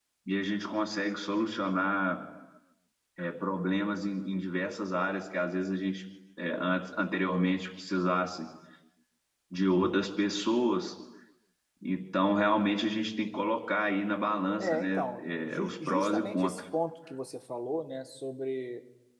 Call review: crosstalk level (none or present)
present